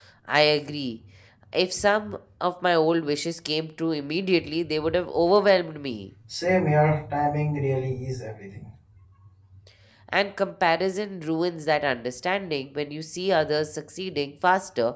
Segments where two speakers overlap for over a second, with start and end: none

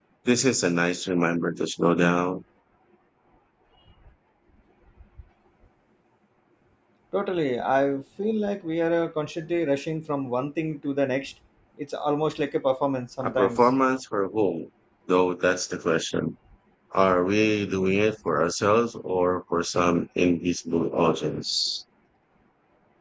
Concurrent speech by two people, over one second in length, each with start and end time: none

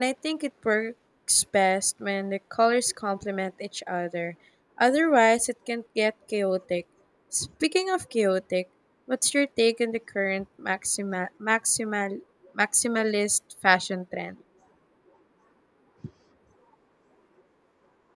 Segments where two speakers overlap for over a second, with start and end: none

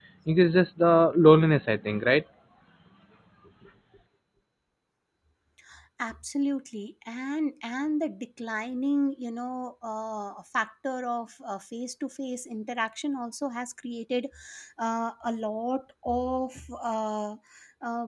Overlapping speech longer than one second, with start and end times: none

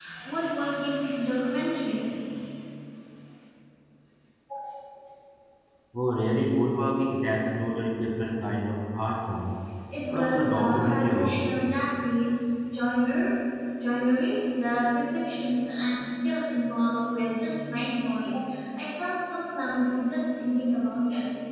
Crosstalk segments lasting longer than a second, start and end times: 10.1-11.4

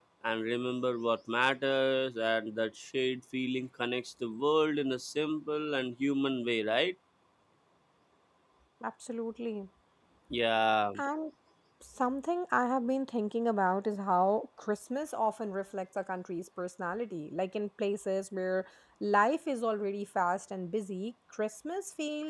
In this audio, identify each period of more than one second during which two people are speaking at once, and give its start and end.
none

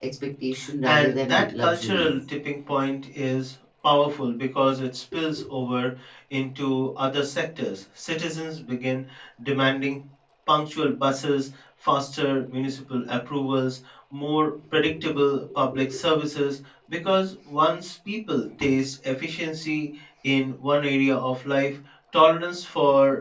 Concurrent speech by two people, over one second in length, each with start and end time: 0.8-2.1

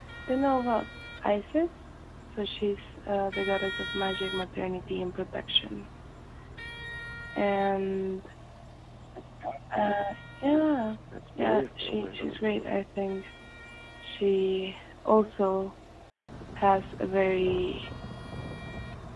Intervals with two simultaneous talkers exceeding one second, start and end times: 11.4-12.7

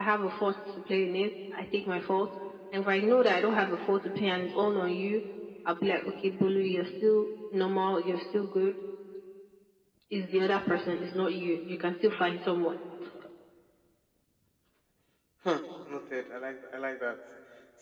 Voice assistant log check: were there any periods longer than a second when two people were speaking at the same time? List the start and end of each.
none

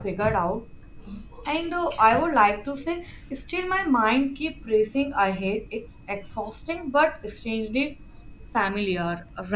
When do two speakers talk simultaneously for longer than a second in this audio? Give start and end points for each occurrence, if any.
none

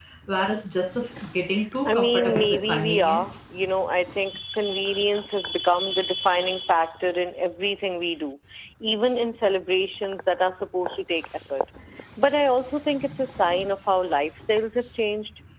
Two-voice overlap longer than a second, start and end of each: 1.9-3.3

